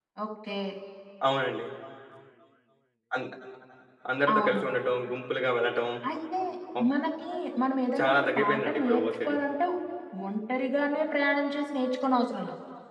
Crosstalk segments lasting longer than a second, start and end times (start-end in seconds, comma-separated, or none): 8.0-9.4